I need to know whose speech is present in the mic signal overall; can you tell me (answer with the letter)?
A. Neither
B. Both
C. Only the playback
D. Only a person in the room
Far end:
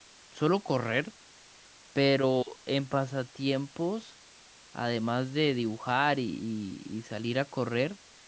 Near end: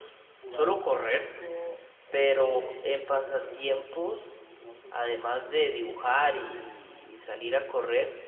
B